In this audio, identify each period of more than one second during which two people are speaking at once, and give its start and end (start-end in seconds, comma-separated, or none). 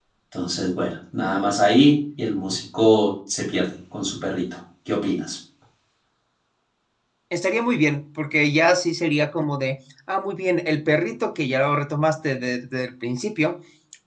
none